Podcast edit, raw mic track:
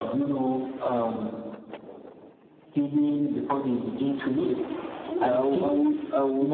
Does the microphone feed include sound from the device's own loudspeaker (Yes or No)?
Yes